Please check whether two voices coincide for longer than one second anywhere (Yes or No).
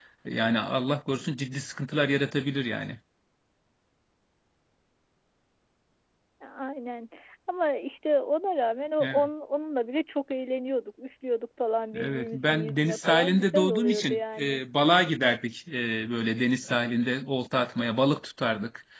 Yes